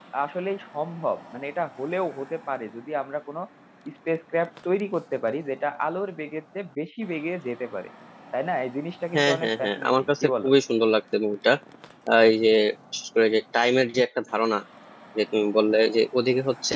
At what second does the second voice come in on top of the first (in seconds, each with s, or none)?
9.2 s